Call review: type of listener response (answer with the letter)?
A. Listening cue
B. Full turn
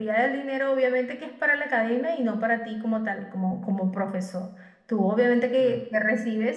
A